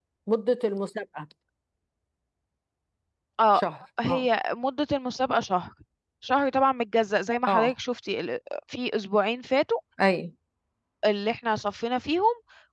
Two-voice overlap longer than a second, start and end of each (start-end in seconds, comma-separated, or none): none